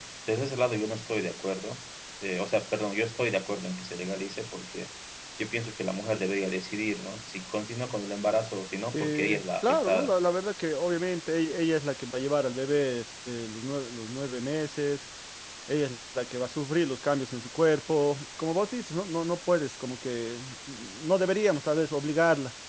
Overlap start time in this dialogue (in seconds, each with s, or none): 8.9 s